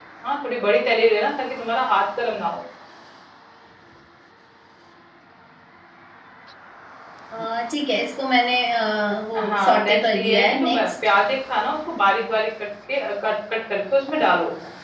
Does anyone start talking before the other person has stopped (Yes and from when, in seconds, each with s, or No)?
Yes, from 9.3 s